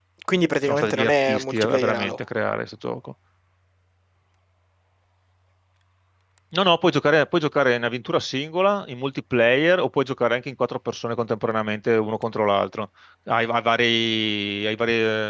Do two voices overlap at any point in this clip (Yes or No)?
Yes